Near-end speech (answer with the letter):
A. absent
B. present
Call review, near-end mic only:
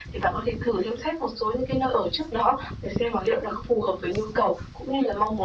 A